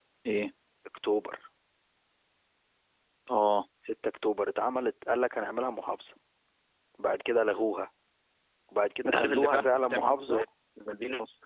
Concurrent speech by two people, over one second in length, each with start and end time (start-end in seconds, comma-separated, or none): 9.0-10.4